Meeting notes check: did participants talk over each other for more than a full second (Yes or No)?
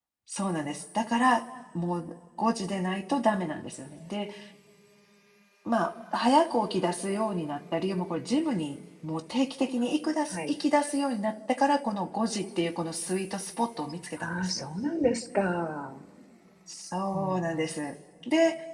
No